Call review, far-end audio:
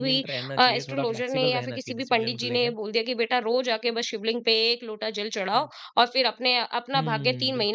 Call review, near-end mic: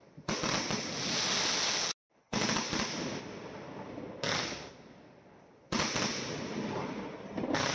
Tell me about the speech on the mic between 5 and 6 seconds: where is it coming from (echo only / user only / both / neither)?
neither